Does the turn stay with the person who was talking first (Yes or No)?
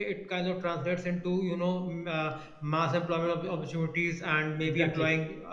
Yes